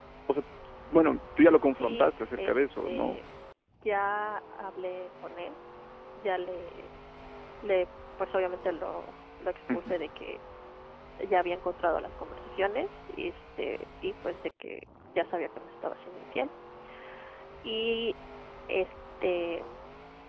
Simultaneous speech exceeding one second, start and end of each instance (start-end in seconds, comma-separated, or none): 1.7-3.2